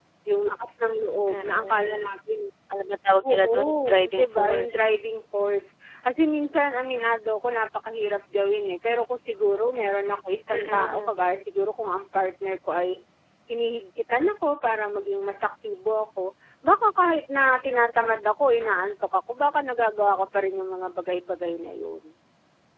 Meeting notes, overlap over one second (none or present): present